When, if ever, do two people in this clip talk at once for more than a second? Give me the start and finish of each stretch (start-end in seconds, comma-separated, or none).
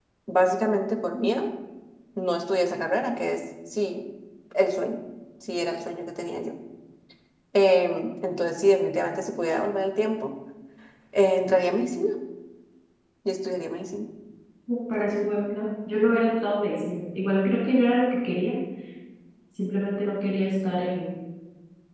none